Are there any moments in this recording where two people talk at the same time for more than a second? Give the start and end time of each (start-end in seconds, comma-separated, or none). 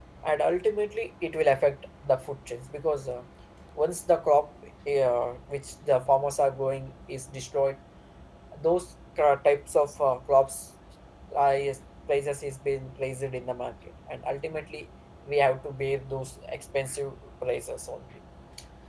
none